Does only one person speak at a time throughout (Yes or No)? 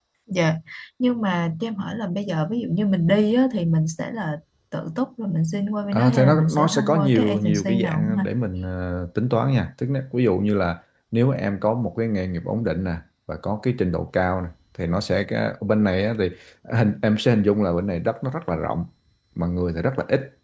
No